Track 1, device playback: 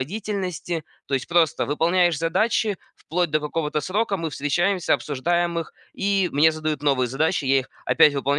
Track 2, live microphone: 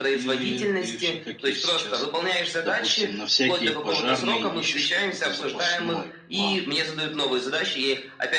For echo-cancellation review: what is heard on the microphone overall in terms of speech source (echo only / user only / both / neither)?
both